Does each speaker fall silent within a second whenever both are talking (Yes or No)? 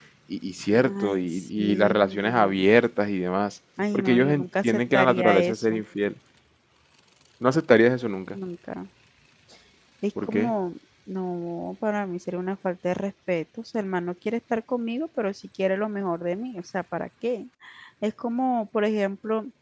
No